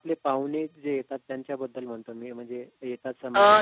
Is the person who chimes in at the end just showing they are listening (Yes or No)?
No